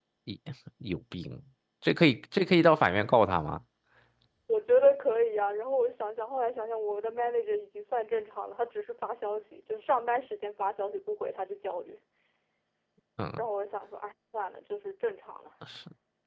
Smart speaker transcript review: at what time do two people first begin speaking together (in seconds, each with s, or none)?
none